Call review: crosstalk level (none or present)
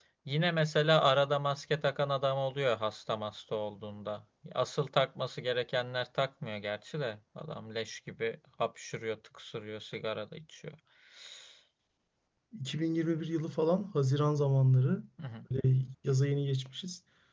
none